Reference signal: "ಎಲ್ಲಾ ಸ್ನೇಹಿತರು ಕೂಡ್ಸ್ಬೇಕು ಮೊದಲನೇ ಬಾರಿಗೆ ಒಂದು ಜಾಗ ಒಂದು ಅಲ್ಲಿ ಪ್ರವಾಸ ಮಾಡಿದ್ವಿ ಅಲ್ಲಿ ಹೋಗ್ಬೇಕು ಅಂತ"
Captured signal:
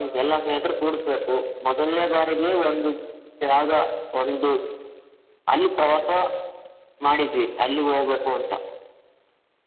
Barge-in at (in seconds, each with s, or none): none